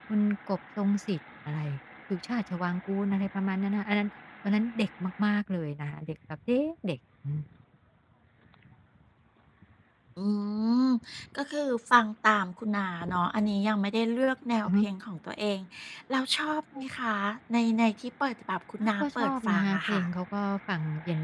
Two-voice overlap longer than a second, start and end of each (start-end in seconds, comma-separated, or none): 18.8-20.0